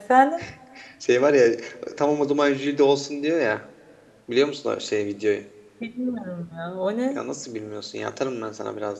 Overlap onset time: none

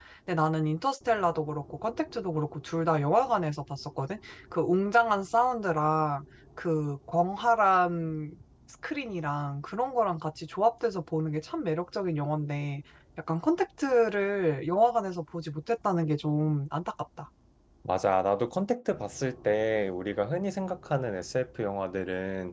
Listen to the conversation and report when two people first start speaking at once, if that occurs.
none

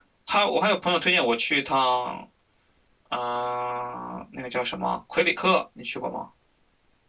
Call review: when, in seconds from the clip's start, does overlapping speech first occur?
none

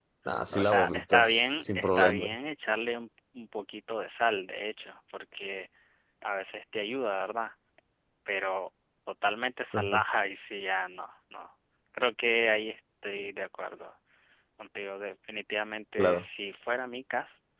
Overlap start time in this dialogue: 0.5 s

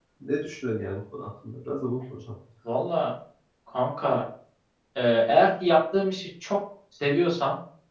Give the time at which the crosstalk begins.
none

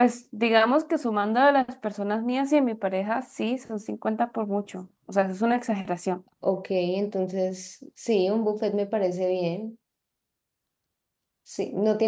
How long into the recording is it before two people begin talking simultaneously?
none

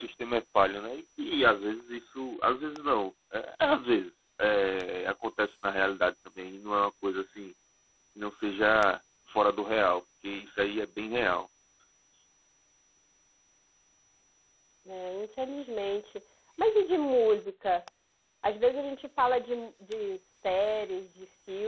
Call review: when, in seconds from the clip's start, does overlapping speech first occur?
none

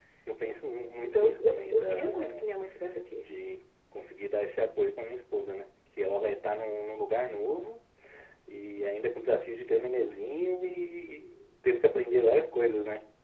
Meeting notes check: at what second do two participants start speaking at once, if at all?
1.0 s

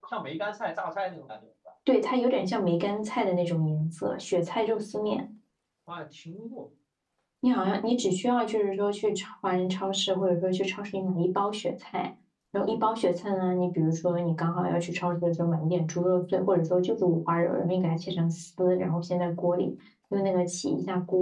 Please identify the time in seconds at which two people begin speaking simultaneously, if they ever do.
none

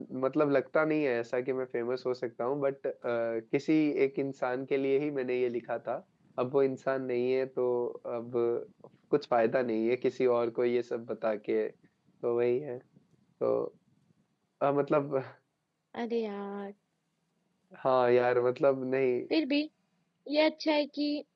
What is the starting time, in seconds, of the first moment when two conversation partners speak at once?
none

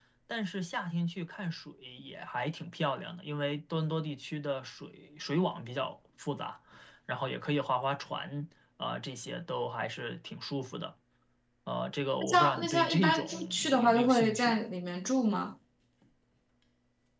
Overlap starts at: 12.2 s

